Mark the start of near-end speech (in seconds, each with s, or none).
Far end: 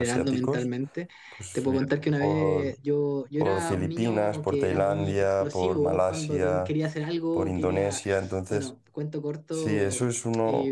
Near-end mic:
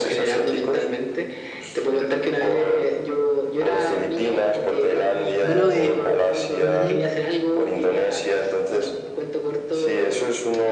5.4 s